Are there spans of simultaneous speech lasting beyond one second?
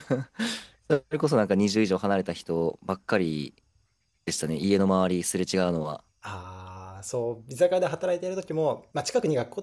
No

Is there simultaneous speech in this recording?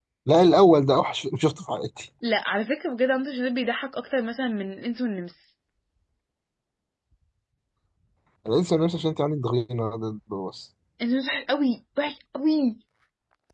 No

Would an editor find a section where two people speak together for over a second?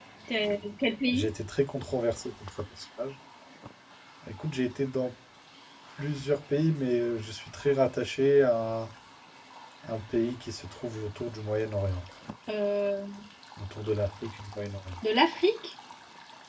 No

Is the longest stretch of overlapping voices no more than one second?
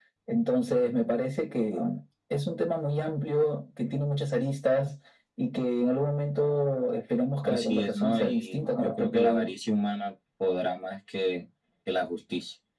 No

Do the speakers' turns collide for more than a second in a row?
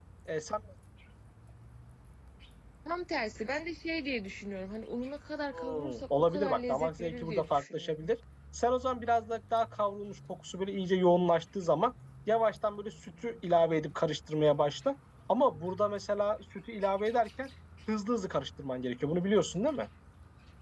Yes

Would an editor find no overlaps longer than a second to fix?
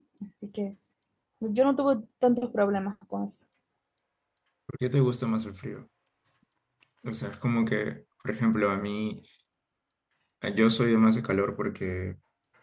Yes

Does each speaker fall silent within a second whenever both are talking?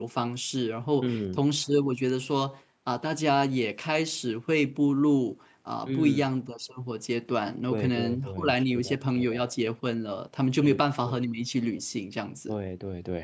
No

